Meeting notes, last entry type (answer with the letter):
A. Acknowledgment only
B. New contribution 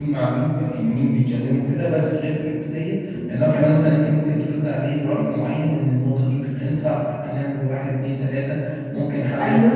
A